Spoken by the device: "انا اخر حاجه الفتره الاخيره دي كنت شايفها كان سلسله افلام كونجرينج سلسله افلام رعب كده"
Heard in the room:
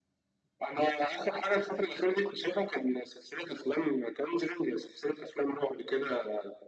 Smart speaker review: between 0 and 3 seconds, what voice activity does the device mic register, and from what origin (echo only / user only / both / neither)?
echo only